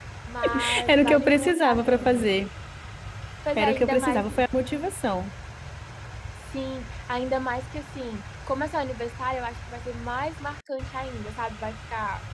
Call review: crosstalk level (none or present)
present